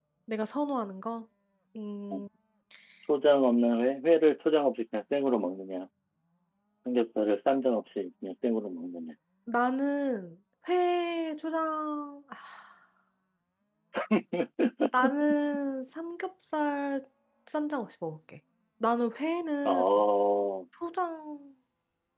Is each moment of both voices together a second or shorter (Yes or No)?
Yes